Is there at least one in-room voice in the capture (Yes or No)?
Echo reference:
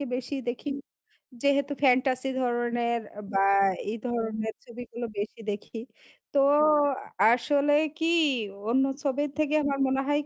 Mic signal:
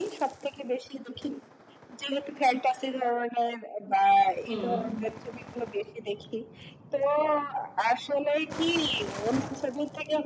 Yes